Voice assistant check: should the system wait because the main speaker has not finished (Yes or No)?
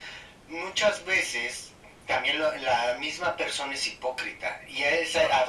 Yes